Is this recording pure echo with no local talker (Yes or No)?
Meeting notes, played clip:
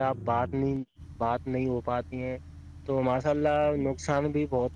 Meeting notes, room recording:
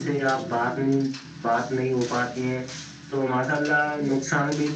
Yes